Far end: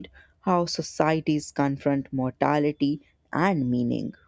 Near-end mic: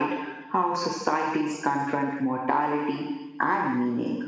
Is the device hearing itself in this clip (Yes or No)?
Yes